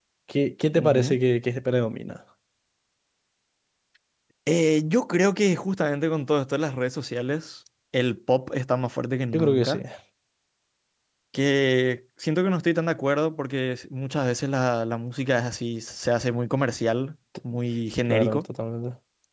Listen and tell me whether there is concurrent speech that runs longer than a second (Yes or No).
No